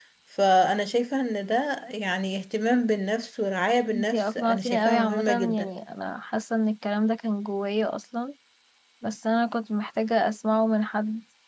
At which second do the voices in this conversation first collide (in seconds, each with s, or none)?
3.9 s